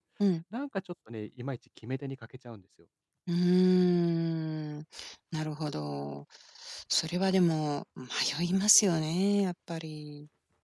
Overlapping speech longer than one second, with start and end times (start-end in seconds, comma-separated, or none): none